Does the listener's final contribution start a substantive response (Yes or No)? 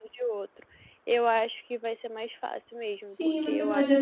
Yes